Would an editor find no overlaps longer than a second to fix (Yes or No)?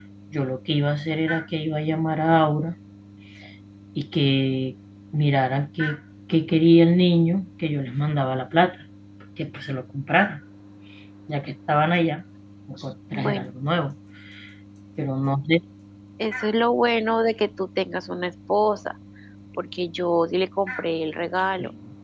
Yes